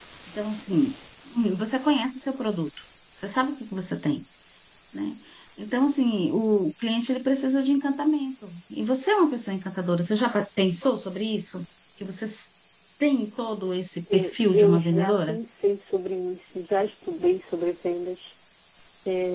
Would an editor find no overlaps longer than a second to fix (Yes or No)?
No